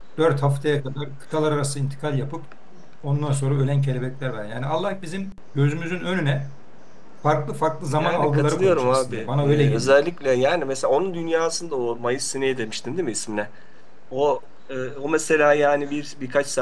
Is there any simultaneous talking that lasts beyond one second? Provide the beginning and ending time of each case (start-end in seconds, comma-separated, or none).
8.0-9.9